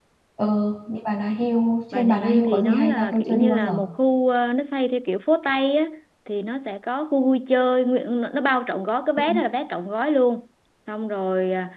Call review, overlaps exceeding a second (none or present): present